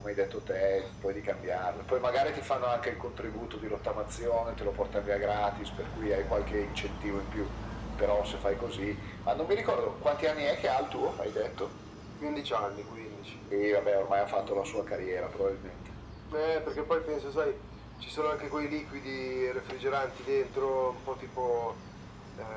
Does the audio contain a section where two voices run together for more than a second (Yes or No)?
No